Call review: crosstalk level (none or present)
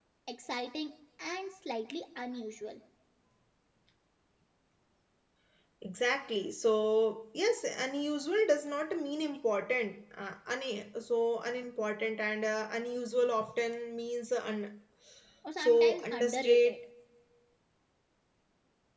present